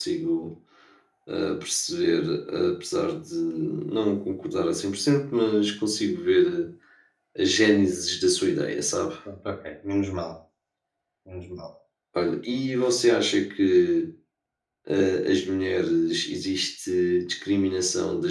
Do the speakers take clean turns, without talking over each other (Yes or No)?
Yes